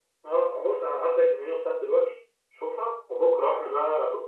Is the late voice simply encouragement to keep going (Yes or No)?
Yes